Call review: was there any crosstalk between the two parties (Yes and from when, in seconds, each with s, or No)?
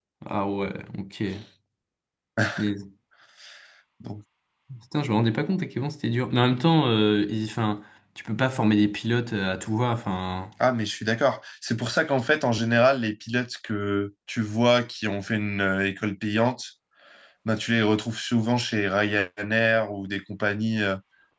No